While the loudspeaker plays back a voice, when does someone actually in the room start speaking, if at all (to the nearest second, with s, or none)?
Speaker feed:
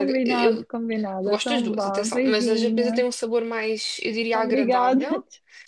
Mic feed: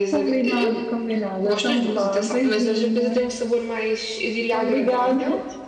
none